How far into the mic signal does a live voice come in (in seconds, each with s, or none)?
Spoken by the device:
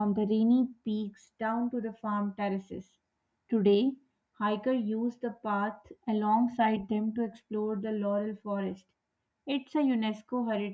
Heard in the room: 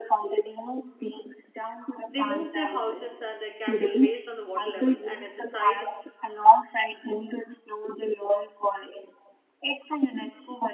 2.1 s